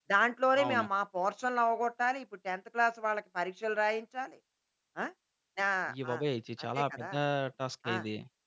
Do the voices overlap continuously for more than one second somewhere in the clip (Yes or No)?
No